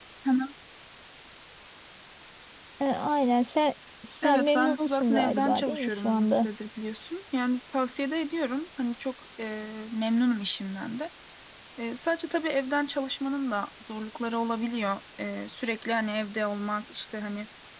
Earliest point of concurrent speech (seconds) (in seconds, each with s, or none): 4.2 s